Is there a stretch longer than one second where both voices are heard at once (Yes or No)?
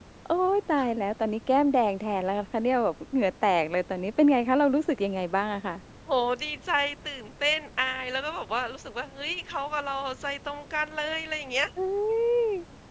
No